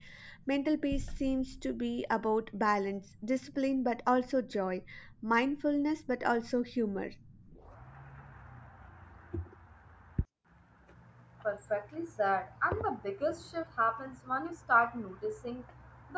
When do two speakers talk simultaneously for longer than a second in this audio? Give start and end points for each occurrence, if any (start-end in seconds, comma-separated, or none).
none